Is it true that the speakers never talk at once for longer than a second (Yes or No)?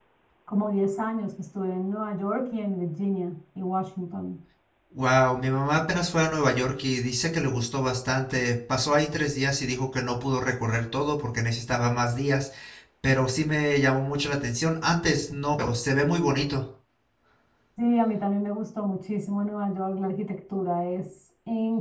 Yes